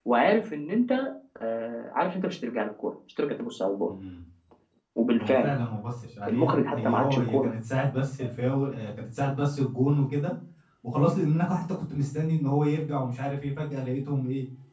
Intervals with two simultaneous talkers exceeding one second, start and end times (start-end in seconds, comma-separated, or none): 6.3-7.5